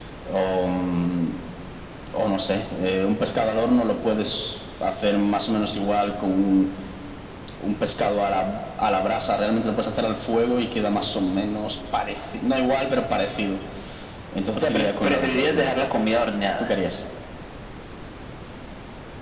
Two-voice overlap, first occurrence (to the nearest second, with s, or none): 15 s